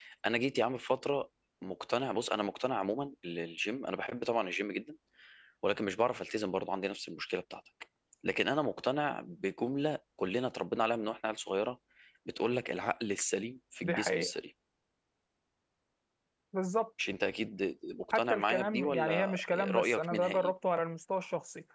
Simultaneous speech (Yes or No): Yes